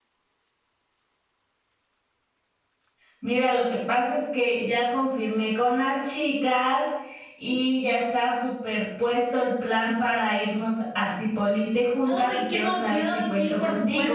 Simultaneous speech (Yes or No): Yes